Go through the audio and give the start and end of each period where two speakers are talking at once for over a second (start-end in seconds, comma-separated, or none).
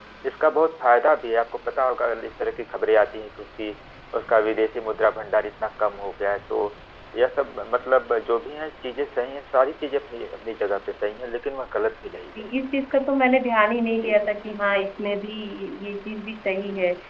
none